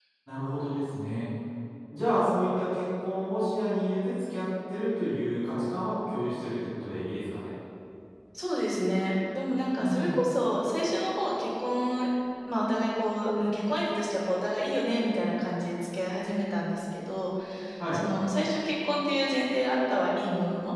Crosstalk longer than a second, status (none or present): none